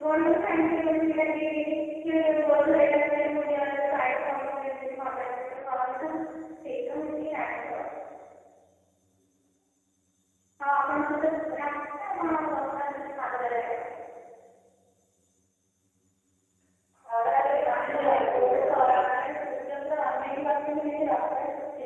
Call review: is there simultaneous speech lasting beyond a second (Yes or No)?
Yes